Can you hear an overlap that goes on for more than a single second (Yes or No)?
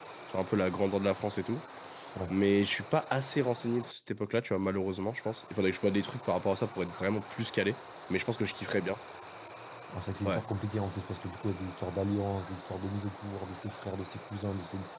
No